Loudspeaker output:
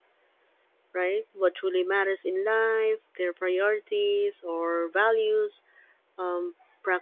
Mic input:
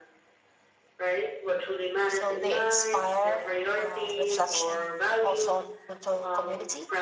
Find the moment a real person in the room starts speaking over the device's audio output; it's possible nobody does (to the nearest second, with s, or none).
2 s